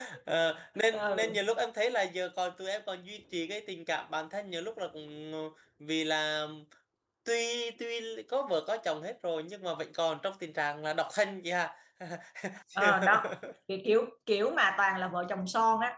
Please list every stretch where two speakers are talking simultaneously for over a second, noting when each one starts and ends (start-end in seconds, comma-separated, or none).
none